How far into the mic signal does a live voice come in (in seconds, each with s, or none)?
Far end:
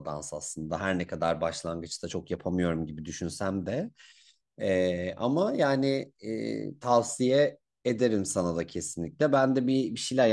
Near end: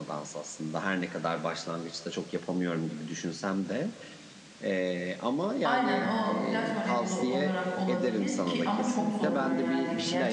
5.6 s